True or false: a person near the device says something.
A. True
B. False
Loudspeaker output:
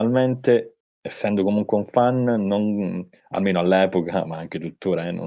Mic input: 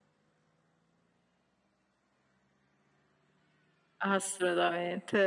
A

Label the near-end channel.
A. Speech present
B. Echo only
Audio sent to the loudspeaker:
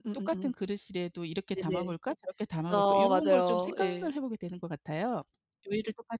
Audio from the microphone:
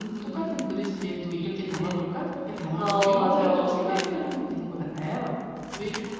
B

